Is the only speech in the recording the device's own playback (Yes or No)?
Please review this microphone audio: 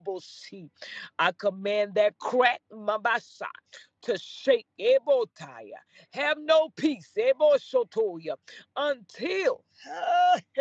No